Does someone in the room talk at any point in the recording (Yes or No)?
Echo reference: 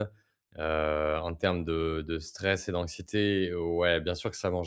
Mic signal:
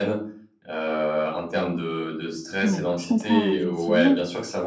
Yes